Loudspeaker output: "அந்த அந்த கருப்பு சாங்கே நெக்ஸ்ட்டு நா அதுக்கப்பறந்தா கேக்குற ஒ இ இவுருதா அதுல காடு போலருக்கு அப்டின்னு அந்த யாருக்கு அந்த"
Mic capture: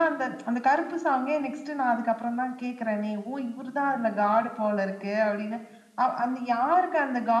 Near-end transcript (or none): none